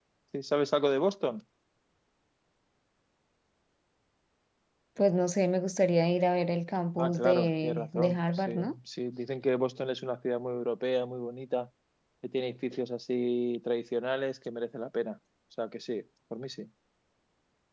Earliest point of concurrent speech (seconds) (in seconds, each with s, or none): 7.0 s